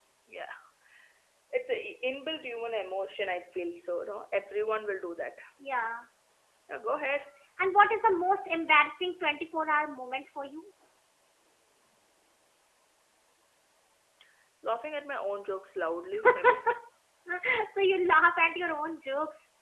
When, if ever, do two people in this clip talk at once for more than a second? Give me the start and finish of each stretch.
none

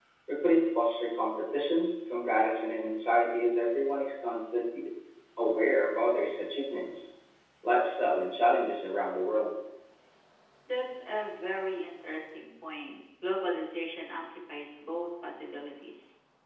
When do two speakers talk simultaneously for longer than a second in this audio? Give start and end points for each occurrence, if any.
none

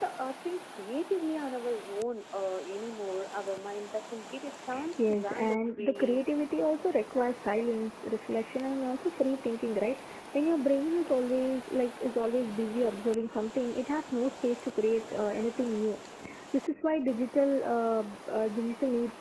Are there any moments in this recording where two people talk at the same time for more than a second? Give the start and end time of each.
5.0-6.2

